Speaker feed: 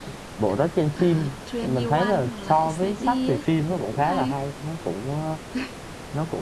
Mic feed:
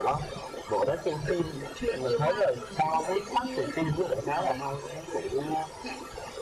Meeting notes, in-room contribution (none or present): none